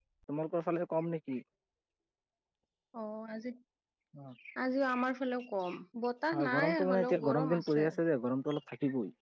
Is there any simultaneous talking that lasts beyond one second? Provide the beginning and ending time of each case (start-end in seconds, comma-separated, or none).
6.3-7.8